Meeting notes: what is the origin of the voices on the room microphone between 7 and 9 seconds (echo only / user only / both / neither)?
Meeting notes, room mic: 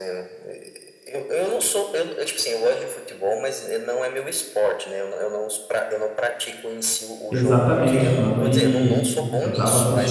both